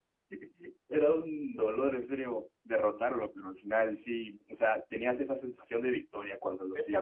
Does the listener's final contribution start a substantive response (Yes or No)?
Yes